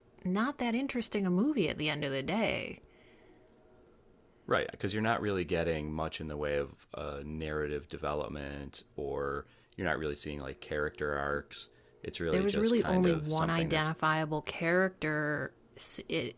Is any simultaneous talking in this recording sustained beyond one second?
Yes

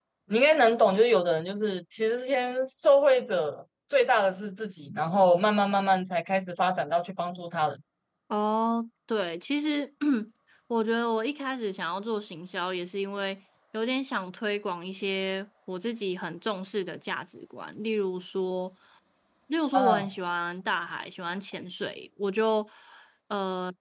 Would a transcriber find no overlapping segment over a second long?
Yes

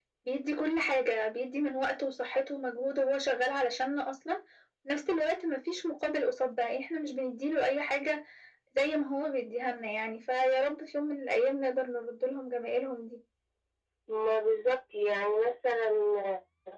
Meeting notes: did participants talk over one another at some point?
No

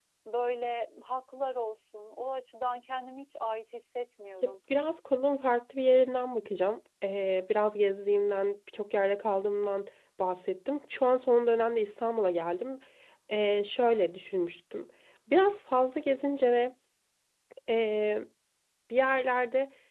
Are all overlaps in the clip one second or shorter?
Yes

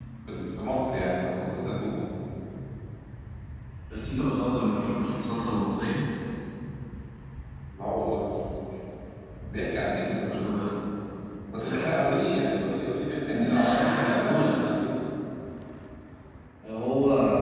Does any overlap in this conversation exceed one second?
Yes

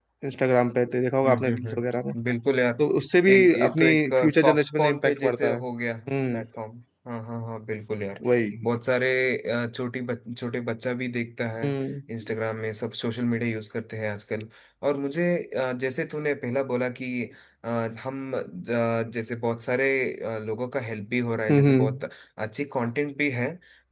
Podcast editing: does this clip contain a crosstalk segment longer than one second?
Yes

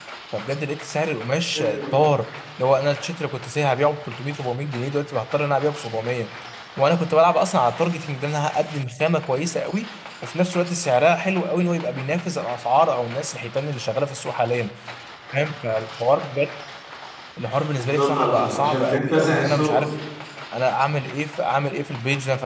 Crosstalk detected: Yes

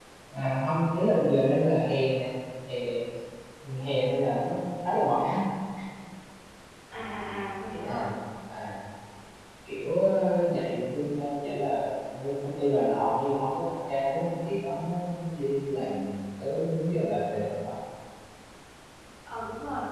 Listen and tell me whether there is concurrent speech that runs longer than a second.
No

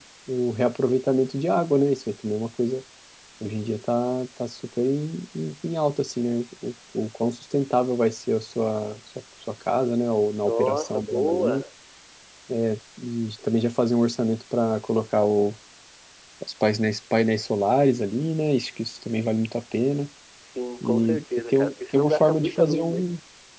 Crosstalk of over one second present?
Yes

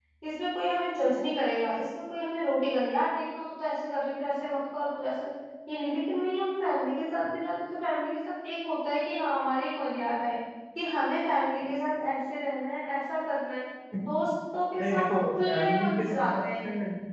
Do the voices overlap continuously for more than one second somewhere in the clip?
Yes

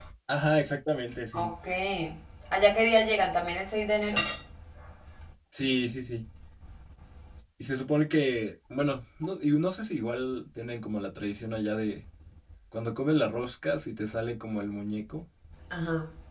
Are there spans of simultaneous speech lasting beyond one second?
No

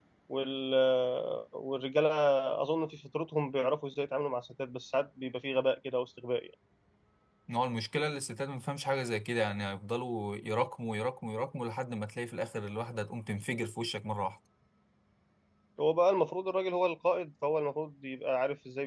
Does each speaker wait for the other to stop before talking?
Yes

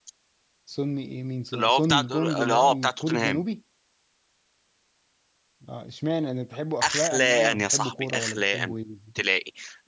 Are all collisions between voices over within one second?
No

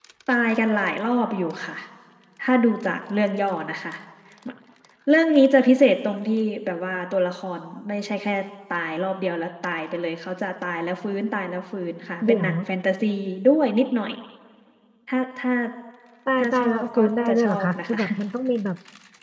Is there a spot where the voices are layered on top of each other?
Yes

